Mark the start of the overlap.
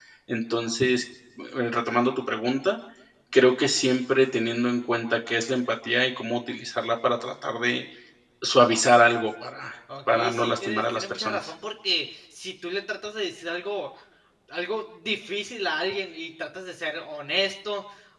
10 s

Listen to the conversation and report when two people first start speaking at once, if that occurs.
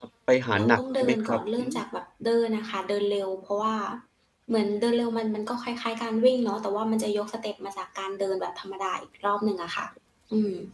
1 s

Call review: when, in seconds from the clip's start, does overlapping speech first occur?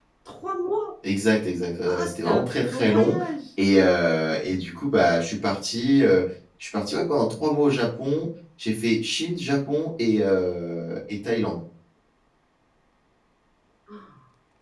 2 s

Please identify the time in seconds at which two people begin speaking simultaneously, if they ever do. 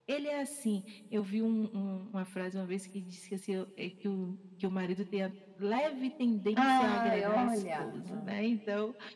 7 s

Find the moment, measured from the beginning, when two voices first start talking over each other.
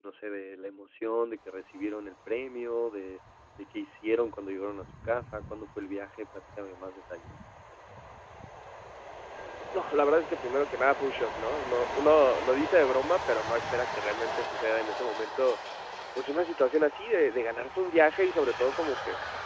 none

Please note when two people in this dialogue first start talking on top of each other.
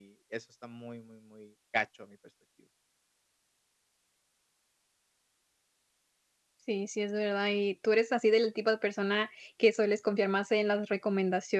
none

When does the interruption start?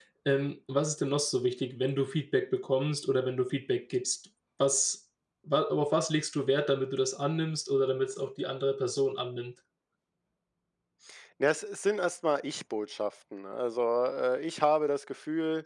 none

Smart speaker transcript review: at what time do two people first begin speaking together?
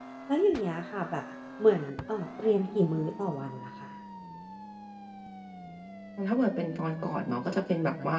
none

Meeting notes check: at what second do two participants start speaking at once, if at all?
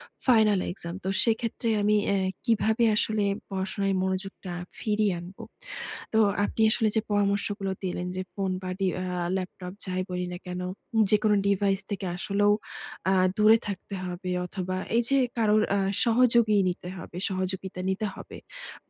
none

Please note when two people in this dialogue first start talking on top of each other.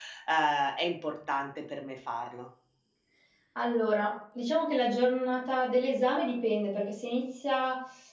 none

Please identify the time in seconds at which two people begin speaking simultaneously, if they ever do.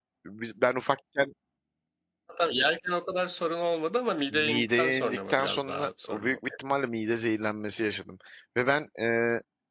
4 s

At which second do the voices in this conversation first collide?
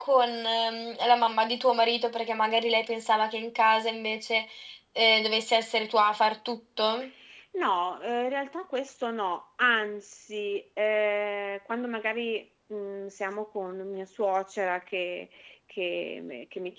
none

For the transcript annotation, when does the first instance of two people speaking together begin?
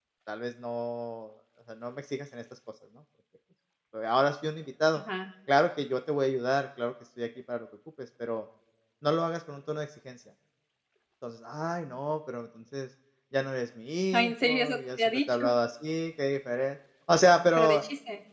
14 s

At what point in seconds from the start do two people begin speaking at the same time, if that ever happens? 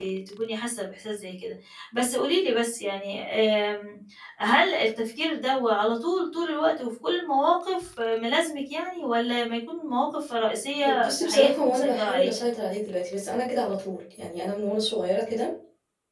11 s

